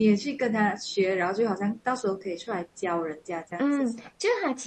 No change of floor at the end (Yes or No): No